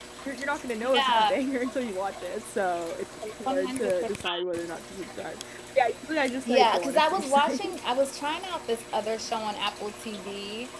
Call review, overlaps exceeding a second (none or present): present